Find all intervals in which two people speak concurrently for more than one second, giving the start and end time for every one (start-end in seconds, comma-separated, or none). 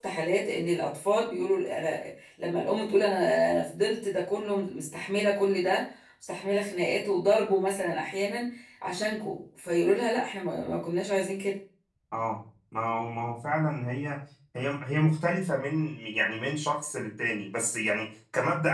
none